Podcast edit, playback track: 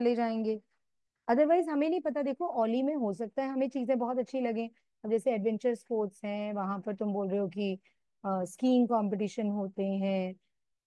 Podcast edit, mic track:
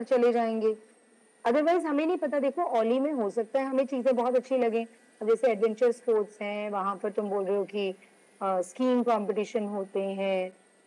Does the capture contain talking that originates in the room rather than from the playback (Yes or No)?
No